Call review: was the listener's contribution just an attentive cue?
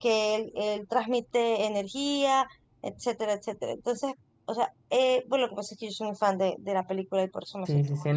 No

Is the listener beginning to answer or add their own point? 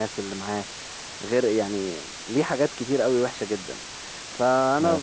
No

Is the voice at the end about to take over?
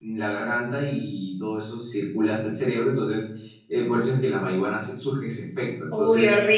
Yes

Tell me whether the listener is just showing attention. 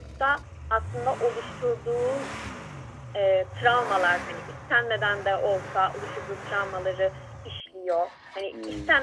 Yes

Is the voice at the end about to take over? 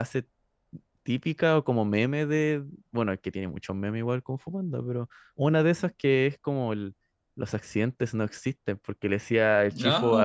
No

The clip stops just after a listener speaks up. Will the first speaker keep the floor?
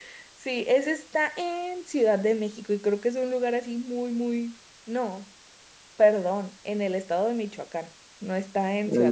Yes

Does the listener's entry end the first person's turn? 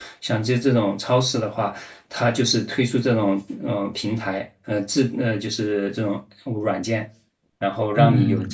Yes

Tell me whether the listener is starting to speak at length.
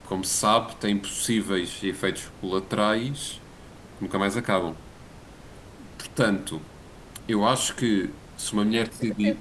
Yes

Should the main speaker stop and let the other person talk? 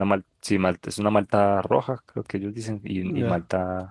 Yes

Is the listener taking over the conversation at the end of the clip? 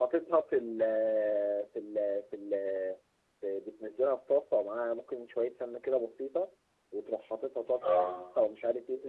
No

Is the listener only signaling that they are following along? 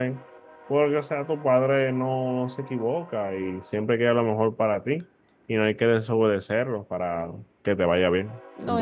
No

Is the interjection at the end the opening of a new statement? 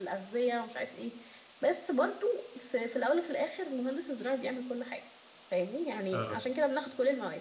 No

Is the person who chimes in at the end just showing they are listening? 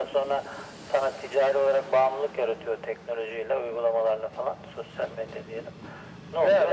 Yes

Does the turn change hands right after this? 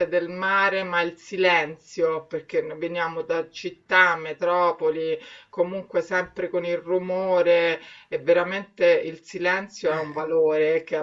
No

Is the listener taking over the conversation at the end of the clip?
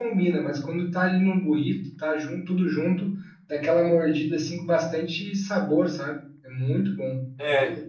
Yes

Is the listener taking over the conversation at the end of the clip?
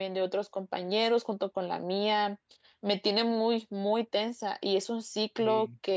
No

